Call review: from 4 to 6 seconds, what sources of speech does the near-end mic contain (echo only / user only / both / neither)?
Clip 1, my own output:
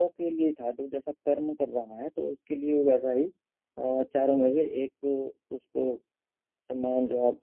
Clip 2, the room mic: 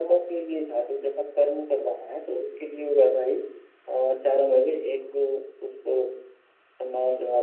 echo only